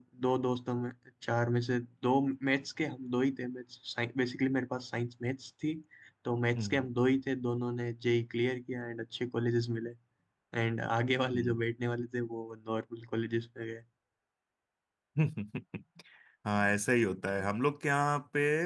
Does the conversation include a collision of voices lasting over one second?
No

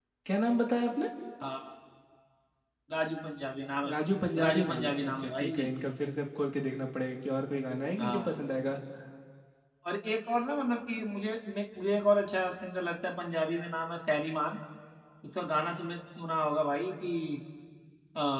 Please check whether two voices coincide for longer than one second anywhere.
Yes, from 4.5 s

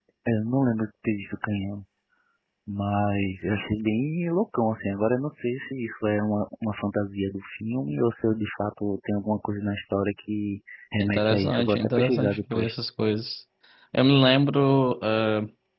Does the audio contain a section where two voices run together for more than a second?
Yes, from 11.0 s

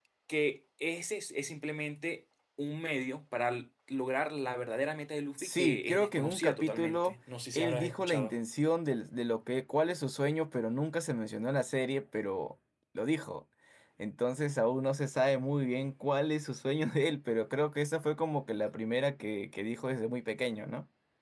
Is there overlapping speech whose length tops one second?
Yes, from 5.4 s

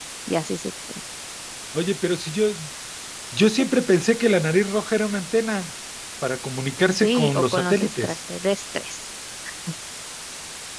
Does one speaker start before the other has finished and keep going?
Yes, from 6.9 s

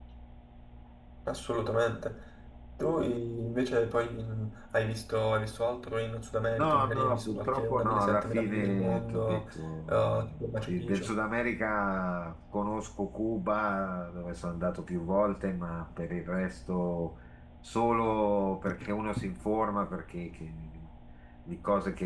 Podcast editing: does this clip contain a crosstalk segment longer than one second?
Yes, from 6.5 s

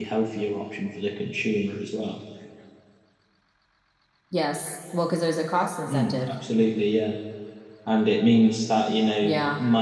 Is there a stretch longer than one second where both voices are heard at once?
No

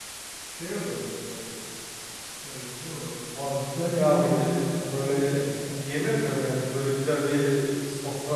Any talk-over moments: Yes, from 4.0 s

